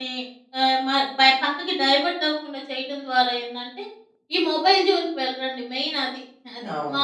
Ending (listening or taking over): taking over